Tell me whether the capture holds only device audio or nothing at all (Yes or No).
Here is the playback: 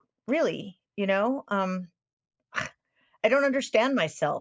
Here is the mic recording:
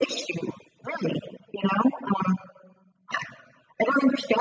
Yes